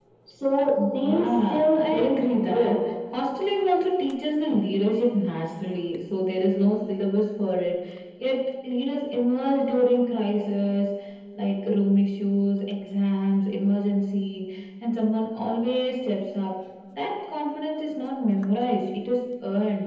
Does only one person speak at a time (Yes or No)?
No